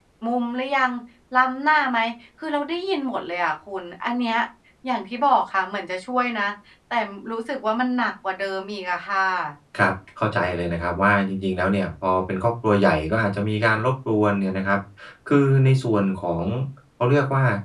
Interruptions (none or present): none